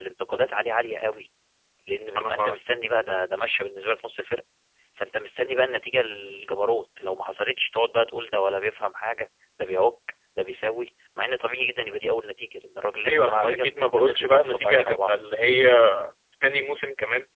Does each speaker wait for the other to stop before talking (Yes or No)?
No